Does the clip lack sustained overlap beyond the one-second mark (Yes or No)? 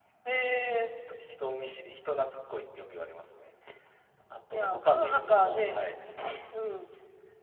No